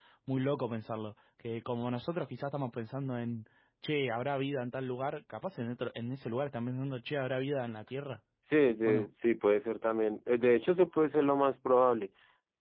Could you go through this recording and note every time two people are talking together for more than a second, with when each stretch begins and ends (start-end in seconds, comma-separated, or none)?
none